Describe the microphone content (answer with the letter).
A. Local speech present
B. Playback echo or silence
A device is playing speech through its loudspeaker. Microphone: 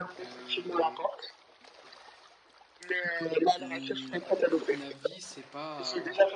A